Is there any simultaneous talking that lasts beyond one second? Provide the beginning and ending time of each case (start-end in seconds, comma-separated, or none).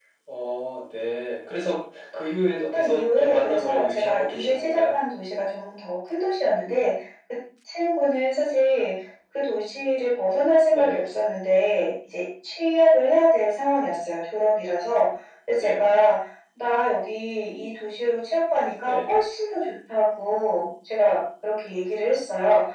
2.7-5.0